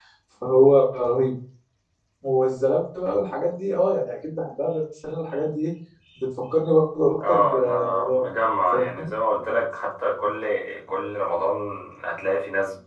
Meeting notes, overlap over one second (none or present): present